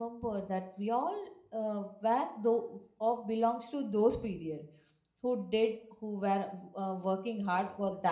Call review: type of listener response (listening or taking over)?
listening